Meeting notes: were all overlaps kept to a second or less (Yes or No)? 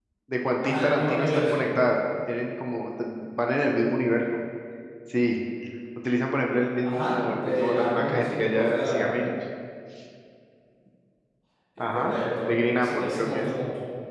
No